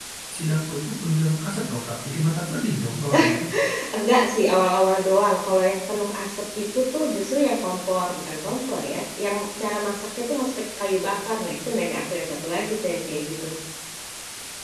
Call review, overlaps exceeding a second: none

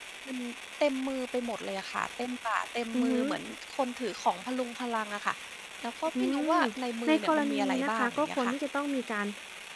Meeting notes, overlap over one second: present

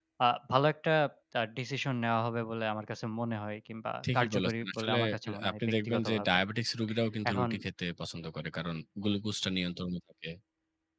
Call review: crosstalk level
present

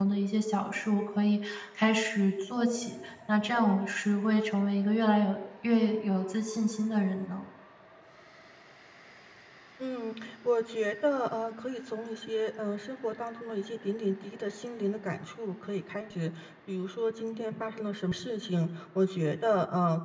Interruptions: none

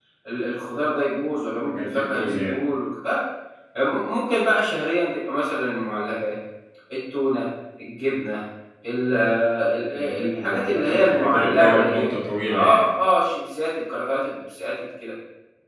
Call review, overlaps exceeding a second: present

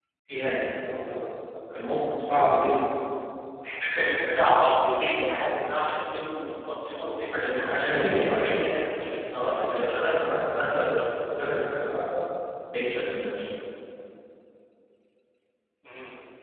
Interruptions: present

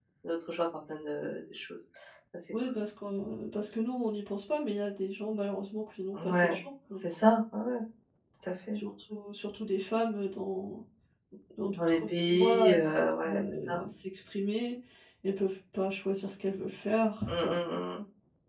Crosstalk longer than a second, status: present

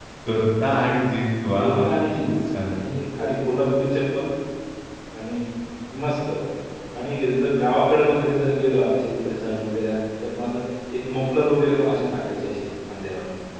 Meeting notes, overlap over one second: none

